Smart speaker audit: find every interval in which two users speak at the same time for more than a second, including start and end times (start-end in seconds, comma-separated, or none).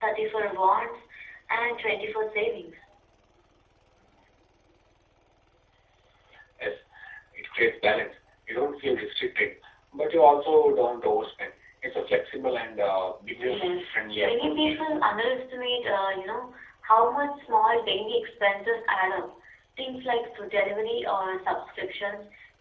13.4-14.8